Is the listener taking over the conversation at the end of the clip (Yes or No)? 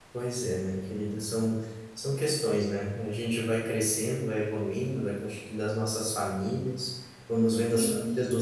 No